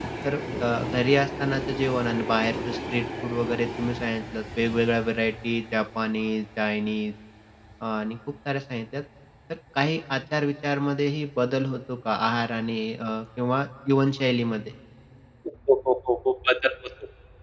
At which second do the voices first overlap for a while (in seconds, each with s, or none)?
none